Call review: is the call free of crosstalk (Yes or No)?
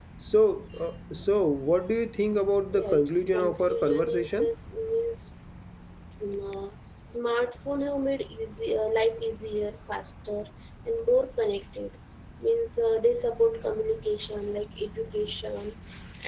No